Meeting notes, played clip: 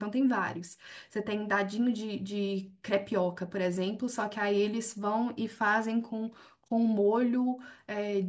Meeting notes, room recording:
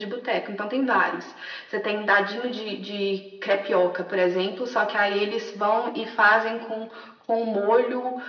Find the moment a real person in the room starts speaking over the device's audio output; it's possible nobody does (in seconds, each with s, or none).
none